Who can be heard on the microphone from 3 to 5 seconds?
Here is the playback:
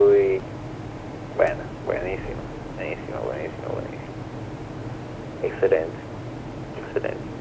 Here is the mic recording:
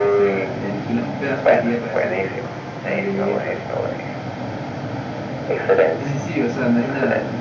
both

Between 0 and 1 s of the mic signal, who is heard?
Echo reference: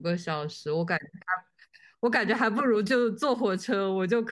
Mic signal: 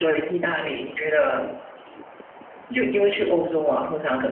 user only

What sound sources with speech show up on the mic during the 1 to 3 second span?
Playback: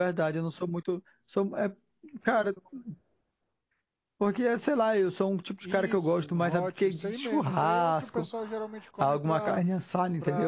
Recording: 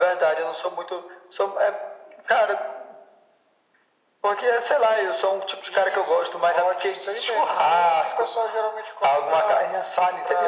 echo only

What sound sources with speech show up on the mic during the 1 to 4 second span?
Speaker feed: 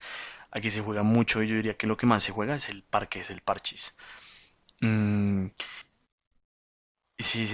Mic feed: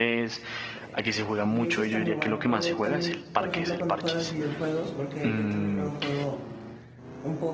both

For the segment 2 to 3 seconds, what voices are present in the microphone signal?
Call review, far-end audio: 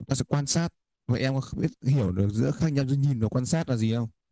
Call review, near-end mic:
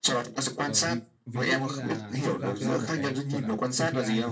both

